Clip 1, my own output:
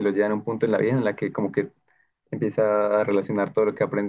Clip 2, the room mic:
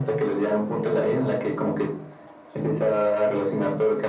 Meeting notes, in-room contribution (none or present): present